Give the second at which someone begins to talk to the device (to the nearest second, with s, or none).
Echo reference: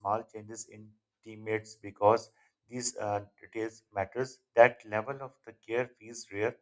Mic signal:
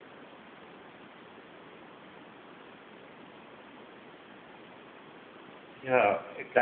6 s